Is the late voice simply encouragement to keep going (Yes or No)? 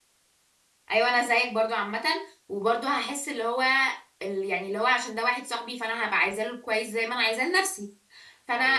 Yes